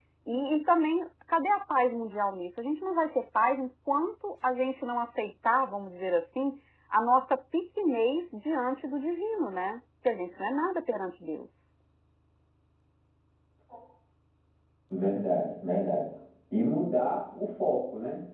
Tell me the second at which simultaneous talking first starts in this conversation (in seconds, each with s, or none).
none